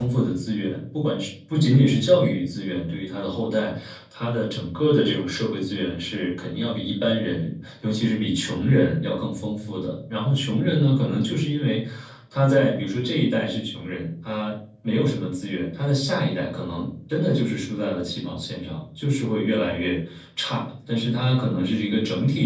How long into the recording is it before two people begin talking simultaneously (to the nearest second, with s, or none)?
none